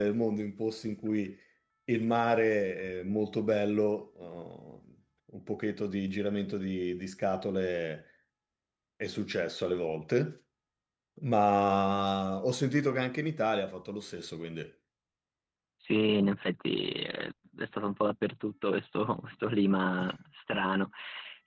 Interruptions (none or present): none